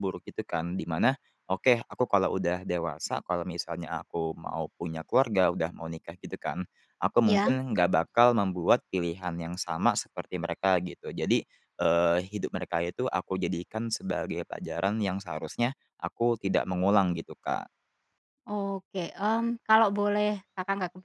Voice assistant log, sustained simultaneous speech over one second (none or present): none